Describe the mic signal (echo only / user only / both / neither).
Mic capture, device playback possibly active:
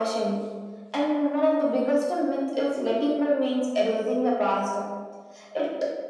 echo only